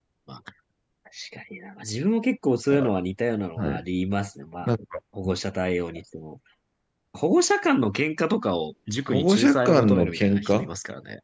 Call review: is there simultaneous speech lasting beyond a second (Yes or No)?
Yes